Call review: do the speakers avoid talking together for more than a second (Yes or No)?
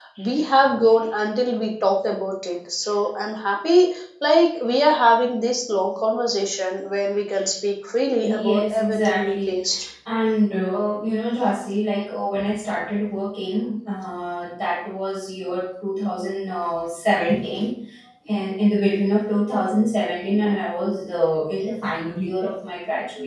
No